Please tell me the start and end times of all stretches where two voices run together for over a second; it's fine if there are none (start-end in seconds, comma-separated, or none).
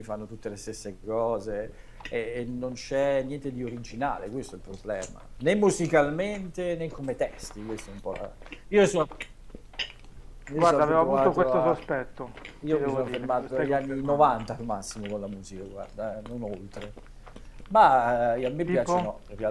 10.6-11.8, 12.7-14.3